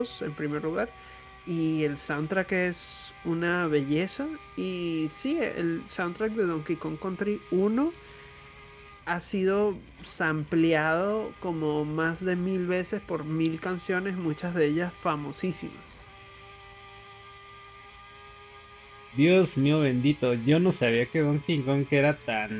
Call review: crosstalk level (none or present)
none